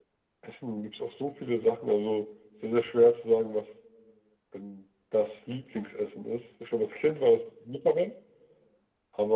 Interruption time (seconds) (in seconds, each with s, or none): none